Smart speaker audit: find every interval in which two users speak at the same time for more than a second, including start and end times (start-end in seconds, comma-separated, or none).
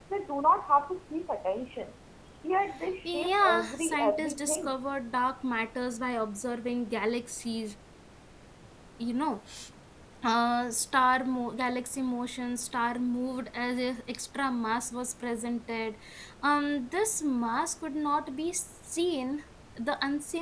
3.0-4.7